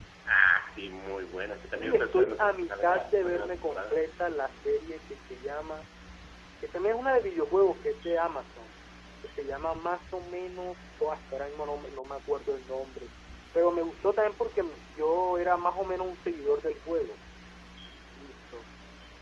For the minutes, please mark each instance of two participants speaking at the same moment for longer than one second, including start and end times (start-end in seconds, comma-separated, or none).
1.8-4.0